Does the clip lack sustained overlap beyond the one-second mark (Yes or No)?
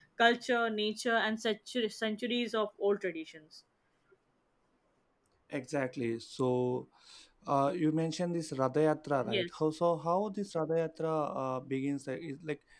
Yes